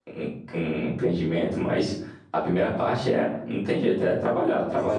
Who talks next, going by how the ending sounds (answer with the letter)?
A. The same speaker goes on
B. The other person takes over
B